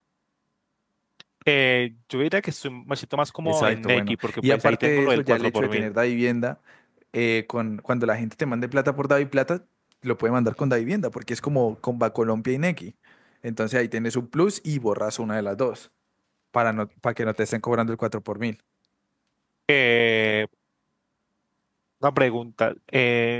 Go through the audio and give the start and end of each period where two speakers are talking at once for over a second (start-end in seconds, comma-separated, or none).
3.4-5.9